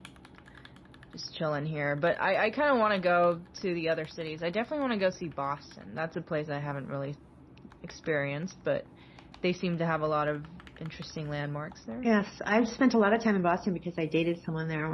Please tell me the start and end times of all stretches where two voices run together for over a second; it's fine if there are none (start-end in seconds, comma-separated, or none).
none